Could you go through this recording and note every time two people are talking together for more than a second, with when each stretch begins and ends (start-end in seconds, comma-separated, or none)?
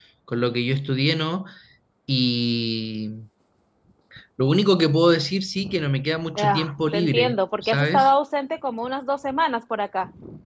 6.4-8.1